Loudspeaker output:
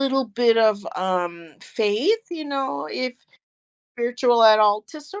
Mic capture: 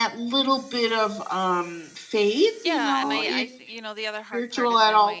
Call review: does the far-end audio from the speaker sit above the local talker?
Yes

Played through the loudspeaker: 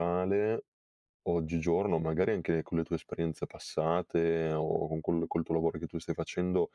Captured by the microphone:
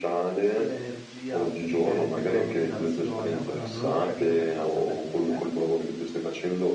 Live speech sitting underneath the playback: Yes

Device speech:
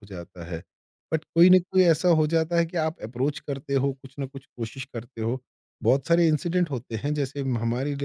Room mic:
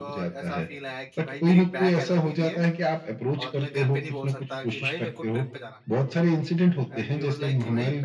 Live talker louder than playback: No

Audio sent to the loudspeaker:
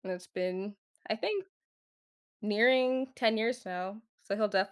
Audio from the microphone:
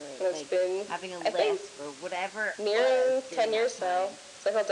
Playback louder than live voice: Yes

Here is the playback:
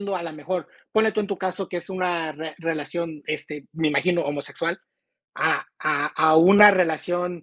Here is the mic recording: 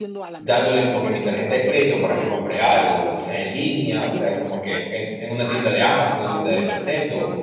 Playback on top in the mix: No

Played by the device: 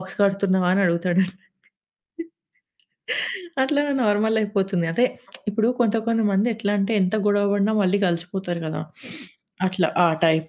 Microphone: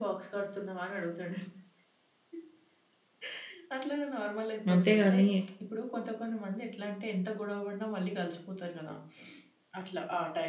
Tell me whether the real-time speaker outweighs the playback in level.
Yes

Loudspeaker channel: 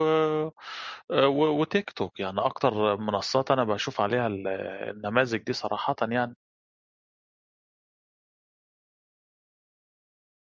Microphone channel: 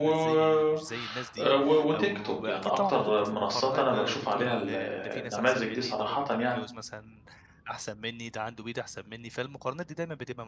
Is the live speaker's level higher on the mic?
No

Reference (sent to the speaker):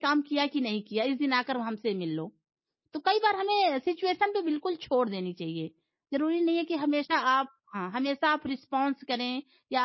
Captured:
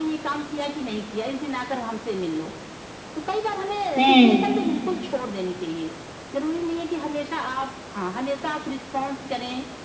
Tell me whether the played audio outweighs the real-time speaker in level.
No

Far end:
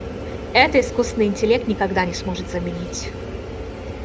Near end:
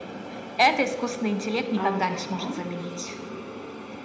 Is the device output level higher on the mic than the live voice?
Yes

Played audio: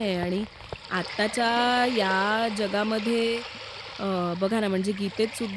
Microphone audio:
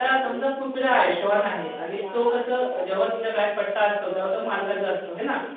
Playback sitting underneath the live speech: Yes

